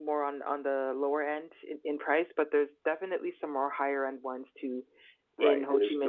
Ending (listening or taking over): taking over